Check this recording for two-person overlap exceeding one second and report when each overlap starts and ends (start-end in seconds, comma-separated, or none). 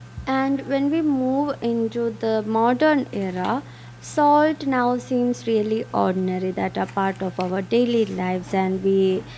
none